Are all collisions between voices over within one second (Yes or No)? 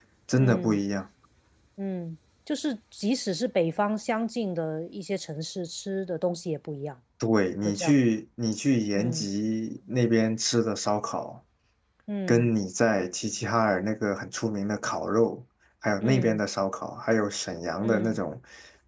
Yes